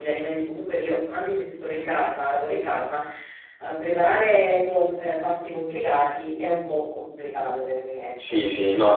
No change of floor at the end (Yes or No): No